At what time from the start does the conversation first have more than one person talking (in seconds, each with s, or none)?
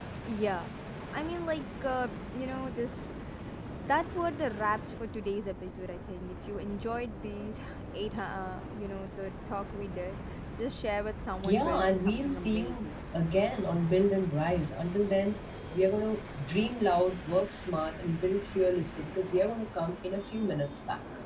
11.4 s